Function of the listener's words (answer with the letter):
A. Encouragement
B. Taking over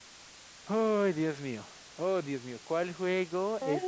A